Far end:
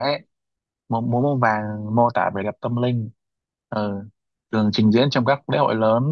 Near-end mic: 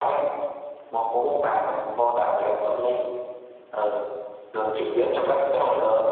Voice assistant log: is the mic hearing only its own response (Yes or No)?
Yes